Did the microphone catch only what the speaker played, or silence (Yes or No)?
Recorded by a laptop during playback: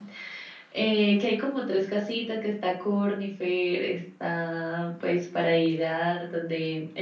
No